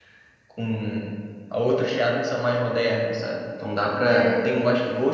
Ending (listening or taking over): listening